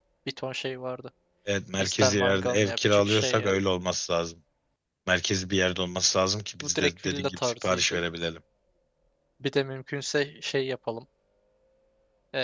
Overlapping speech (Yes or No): Yes